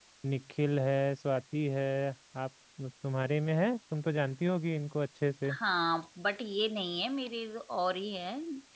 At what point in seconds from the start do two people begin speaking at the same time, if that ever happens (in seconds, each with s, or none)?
none